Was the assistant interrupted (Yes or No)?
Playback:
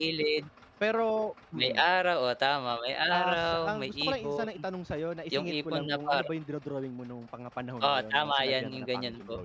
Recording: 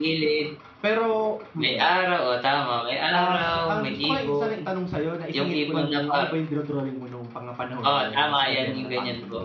No